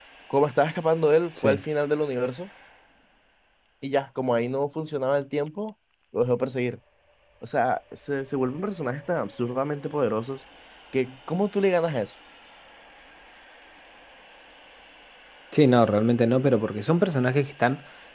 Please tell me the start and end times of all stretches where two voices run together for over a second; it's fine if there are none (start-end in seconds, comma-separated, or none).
none